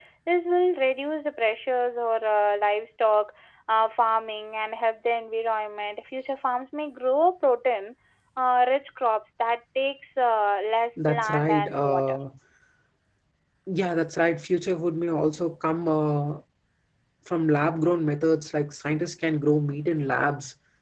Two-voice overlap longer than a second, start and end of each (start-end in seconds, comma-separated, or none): 11.0-12.2